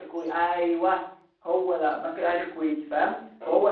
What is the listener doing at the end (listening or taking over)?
listening